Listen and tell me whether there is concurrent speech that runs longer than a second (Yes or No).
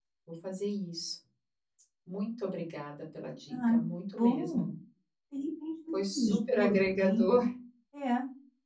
Yes